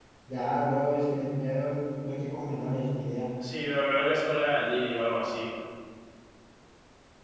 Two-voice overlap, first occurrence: none

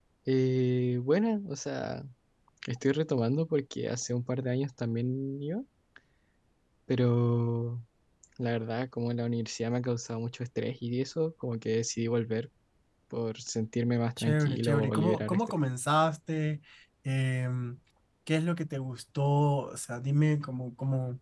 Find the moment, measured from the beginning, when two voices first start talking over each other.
14.2 s

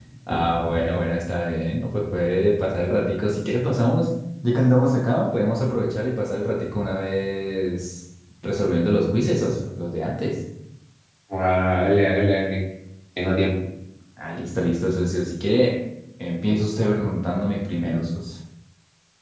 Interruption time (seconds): none

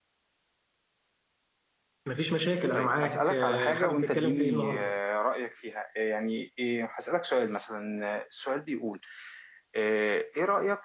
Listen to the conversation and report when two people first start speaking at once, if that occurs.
2.8 s

